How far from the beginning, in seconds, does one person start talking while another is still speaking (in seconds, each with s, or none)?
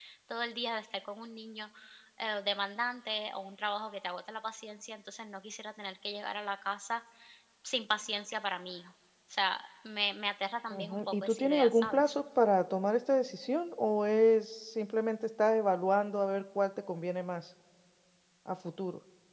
10.7 s